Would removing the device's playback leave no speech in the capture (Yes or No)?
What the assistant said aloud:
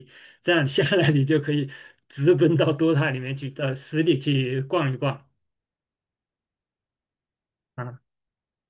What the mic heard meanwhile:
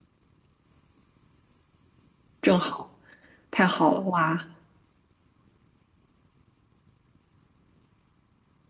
No